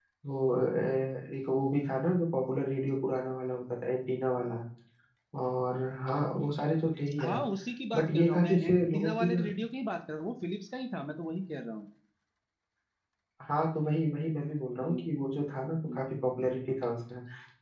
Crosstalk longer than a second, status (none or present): present